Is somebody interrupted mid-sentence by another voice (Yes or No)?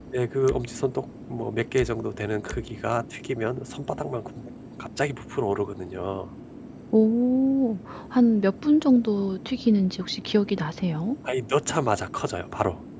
No